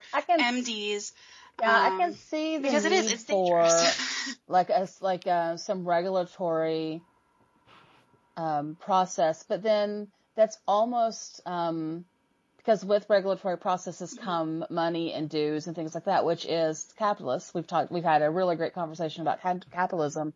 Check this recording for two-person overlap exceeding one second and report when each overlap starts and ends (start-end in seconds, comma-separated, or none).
2.6-3.8